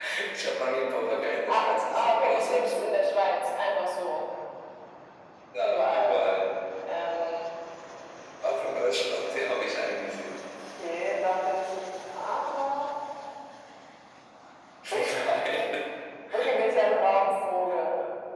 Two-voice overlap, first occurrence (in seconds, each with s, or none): 1.5 s